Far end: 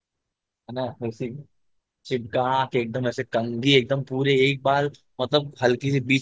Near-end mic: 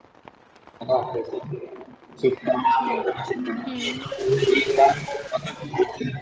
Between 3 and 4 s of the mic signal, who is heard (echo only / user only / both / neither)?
both